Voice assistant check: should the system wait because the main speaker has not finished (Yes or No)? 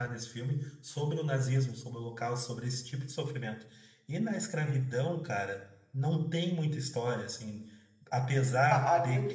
No